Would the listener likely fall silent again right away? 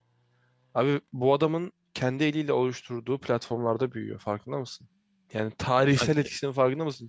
Yes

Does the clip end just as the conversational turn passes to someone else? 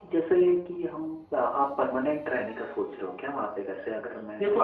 Yes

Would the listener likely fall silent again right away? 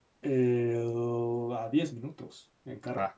Yes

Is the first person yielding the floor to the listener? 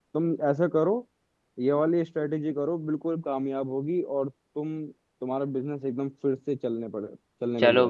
Yes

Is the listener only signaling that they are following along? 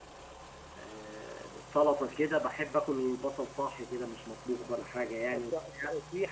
No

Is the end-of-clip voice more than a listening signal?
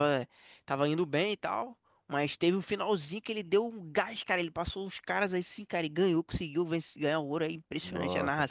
Yes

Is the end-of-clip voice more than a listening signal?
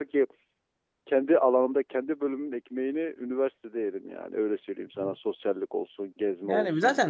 Yes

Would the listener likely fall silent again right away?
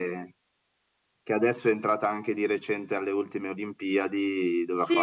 No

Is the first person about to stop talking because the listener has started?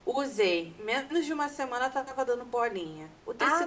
No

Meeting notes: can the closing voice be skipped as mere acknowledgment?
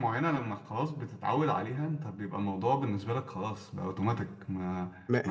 Yes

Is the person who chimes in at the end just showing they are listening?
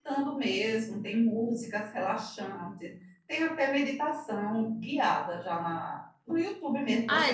No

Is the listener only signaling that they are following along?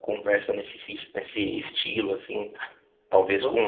Yes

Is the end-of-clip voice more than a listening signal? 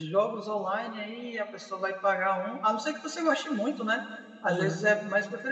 No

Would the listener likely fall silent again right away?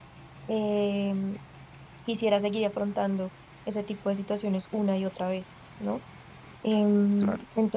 Yes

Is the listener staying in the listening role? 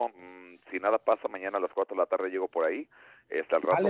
Yes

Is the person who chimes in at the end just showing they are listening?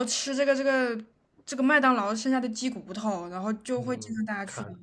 No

